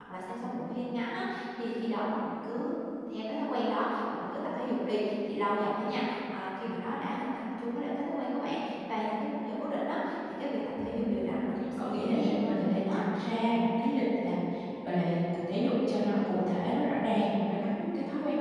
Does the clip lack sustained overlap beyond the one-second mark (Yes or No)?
No